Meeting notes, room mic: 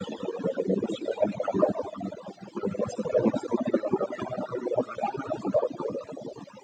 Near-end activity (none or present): none